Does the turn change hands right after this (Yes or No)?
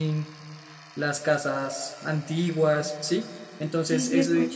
Yes